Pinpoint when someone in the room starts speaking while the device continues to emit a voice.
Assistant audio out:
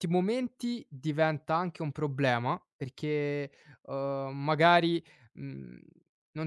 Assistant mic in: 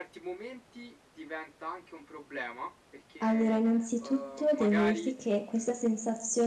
3.2 s

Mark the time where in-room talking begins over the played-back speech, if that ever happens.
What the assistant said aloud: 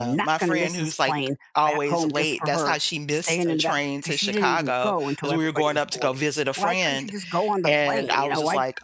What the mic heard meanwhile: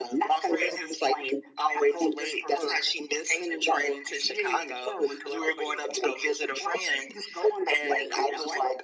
none

